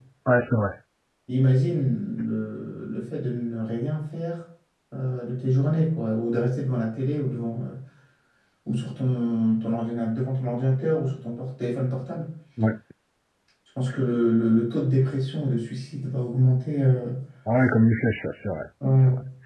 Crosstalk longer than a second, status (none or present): none